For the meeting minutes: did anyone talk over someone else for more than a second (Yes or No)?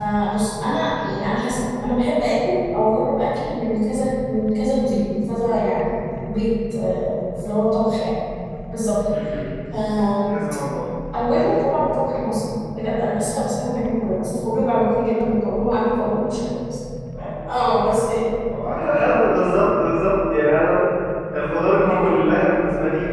No